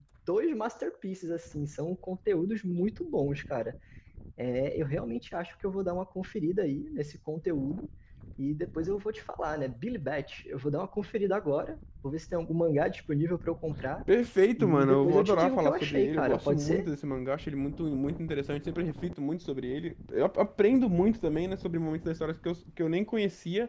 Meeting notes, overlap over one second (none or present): present